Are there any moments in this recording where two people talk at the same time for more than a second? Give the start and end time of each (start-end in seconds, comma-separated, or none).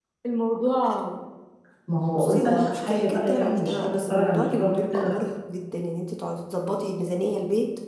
2.1-5.2